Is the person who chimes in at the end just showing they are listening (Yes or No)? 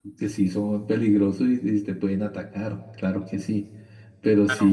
Yes